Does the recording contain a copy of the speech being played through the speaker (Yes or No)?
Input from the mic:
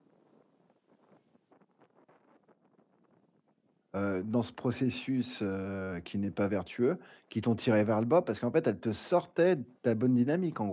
No